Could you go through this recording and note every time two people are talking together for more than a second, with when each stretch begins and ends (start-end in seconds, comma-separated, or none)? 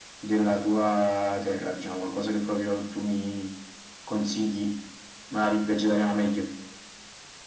none